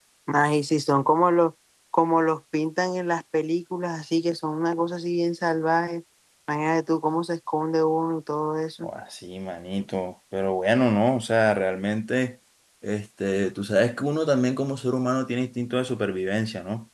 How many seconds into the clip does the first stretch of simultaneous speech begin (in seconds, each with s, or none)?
none